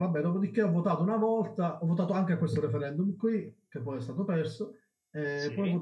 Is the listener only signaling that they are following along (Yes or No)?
Yes